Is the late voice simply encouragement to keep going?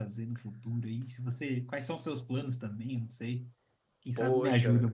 No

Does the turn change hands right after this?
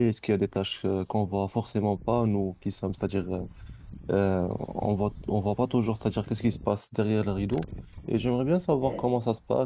No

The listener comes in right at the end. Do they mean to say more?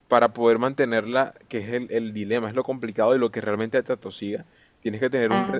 No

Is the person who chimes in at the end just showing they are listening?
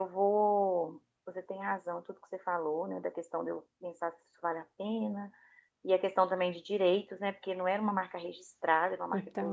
No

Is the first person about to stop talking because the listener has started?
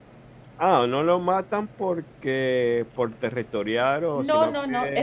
Yes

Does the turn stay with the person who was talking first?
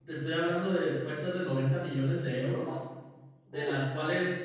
Yes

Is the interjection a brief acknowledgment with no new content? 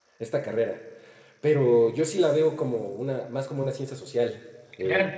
No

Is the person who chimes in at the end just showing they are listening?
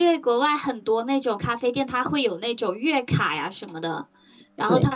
Yes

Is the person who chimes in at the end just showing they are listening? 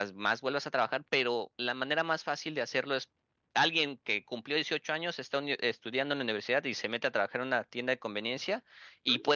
Yes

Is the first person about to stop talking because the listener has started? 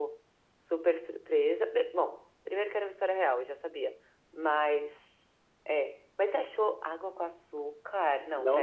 Yes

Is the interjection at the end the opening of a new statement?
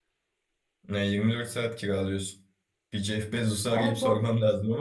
No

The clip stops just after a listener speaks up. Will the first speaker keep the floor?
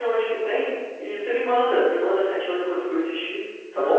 No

